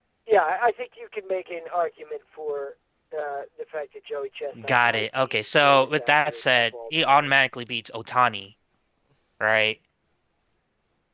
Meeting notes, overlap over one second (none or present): present